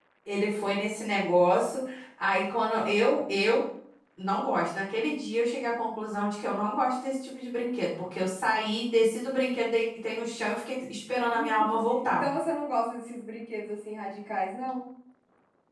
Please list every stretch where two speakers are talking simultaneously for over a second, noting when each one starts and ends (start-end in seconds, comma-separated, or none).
none